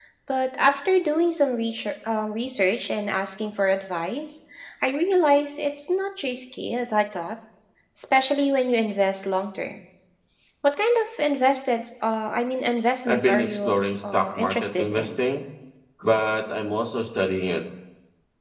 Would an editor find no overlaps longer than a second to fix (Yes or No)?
No